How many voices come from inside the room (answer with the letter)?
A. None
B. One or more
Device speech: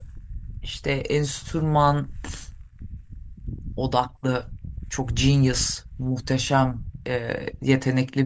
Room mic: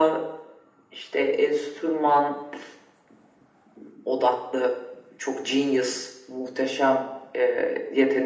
A